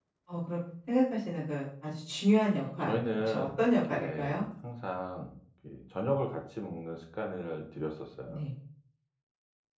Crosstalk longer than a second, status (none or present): present